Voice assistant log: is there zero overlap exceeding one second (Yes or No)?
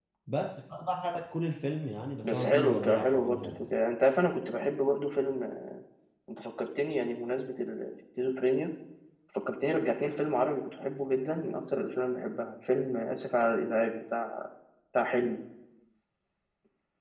No